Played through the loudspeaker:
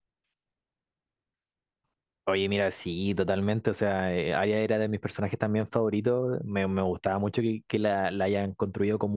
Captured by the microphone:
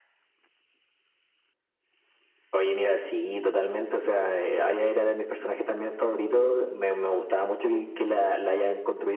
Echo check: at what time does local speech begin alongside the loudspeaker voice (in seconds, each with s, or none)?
none